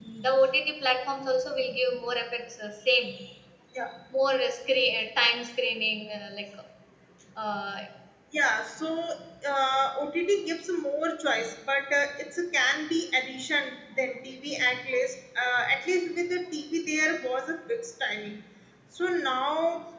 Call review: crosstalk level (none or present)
none